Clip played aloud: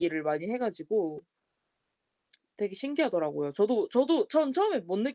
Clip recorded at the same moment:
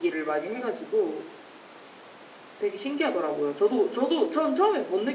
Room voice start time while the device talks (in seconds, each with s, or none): none